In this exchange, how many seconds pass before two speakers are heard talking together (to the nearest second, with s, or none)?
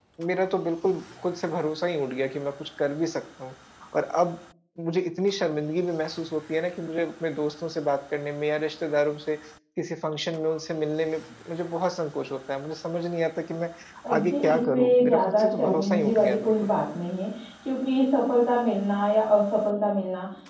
14 s